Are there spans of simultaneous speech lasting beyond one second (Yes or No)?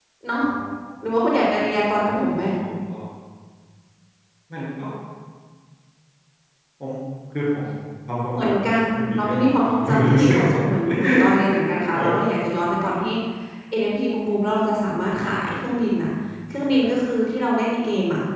Yes